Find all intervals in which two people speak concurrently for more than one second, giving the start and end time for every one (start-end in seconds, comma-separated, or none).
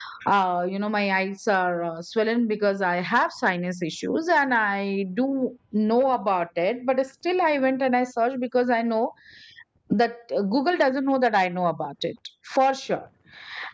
none